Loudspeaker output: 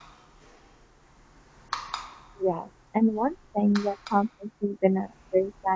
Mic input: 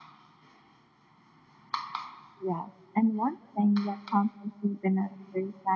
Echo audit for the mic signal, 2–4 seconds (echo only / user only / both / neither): echo only